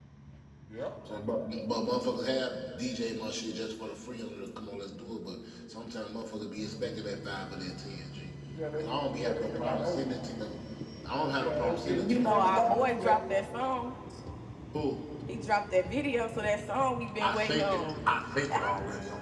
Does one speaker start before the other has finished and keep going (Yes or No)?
Yes